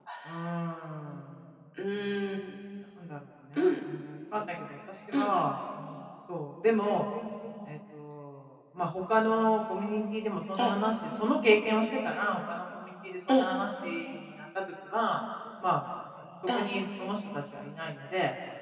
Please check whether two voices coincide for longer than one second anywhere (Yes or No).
No